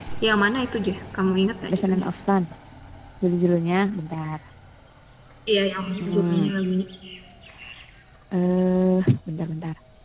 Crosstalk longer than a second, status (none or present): none